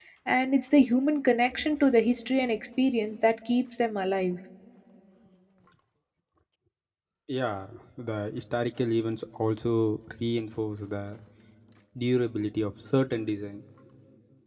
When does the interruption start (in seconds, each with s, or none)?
none